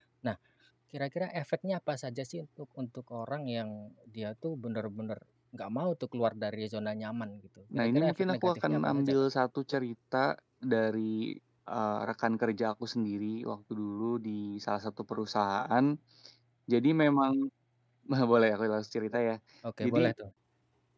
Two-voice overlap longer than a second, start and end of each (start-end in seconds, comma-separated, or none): 7.8-9.2